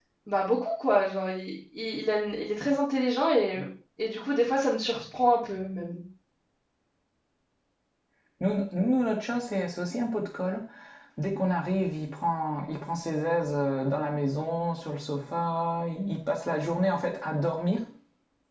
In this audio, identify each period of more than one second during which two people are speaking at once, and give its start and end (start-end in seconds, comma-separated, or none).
none